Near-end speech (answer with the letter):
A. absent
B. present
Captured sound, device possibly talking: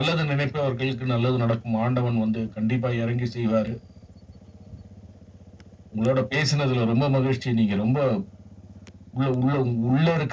A